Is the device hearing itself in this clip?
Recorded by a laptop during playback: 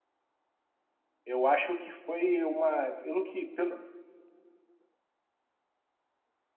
No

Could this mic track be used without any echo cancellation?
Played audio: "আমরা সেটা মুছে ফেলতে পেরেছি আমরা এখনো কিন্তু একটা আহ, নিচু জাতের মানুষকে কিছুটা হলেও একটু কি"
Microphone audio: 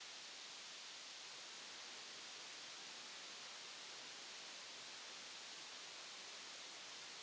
Yes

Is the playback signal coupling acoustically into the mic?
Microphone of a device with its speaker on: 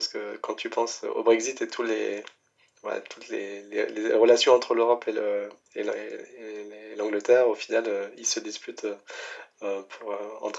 Yes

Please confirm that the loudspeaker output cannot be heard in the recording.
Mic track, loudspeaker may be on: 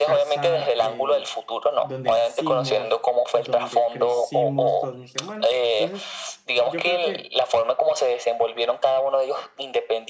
No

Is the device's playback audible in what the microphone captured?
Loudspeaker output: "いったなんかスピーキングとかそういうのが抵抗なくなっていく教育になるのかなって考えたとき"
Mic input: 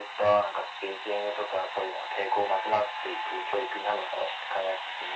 Yes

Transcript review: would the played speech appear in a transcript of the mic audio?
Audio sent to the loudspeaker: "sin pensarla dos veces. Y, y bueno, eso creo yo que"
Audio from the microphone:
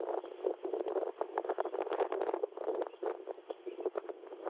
No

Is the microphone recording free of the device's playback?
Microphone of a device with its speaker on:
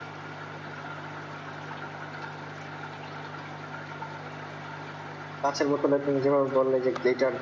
Yes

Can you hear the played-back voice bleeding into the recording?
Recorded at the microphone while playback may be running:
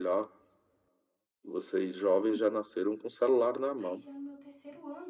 Yes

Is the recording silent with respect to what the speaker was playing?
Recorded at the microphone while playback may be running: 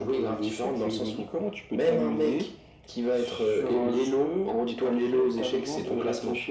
No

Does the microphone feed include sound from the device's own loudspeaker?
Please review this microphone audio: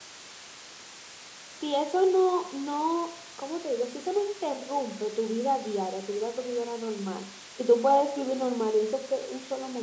No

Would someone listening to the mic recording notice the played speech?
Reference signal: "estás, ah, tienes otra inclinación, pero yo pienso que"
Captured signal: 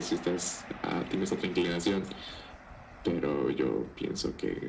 Yes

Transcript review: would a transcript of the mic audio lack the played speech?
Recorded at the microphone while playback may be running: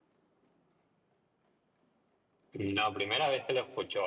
Yes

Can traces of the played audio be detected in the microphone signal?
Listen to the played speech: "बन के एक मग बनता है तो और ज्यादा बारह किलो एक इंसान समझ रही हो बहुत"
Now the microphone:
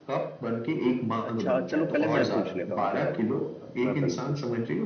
Yes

